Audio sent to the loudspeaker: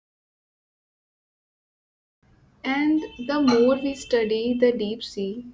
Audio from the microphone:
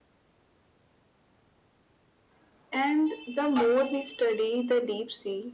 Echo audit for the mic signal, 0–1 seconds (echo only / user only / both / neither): neither